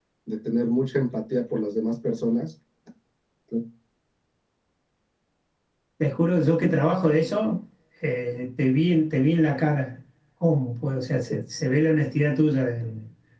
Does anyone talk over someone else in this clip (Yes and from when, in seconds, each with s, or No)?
No